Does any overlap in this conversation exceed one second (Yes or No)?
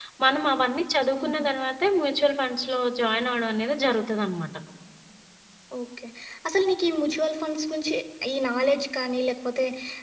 No